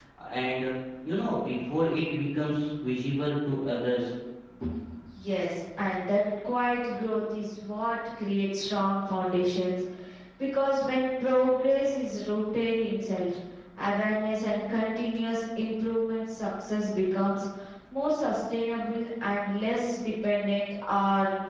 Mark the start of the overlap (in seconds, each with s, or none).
none